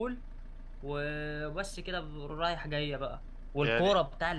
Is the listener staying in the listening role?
Yes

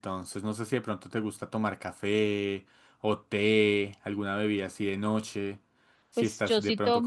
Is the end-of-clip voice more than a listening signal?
Yes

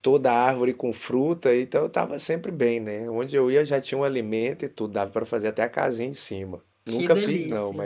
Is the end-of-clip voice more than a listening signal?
No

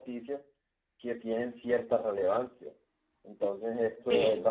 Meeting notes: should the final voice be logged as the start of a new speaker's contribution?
No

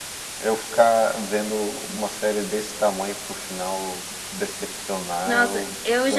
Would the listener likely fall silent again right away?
No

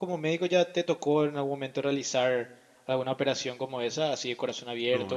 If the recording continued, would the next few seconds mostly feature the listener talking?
Yes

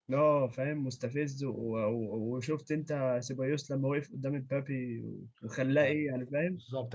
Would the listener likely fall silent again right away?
No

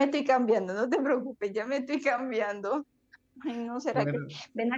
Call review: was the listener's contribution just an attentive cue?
Yes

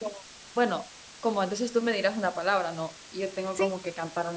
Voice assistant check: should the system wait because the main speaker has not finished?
Yes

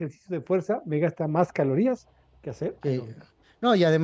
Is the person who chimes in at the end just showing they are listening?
No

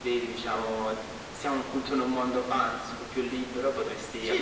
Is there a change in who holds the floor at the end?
No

